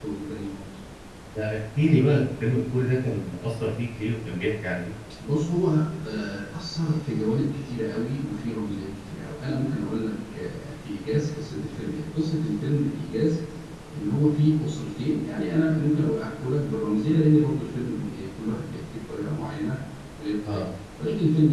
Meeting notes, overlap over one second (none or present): none